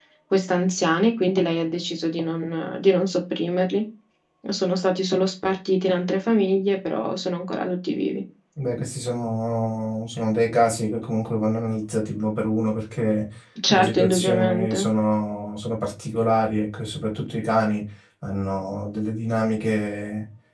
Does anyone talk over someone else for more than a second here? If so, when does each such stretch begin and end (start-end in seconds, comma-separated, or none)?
13.7-14.9